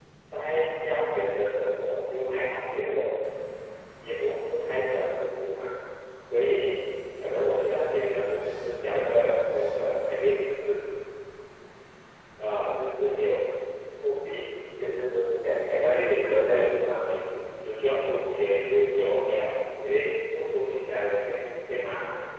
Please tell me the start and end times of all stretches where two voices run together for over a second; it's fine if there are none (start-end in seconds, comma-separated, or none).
15.9-17.1